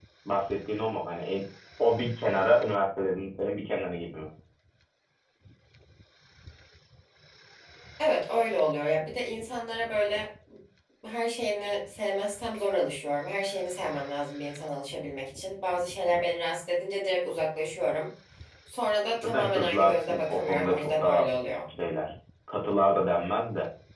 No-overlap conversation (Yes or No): No